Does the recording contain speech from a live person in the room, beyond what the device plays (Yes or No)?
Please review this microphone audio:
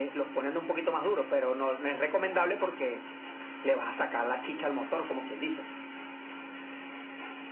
No